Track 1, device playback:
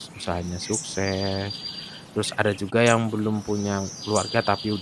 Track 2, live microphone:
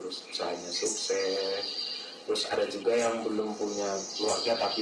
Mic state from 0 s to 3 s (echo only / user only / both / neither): echo only